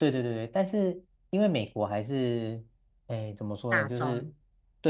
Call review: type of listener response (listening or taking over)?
listening